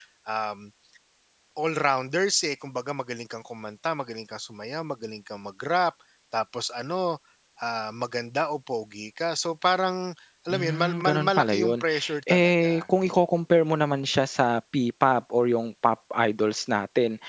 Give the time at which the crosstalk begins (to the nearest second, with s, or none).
10 s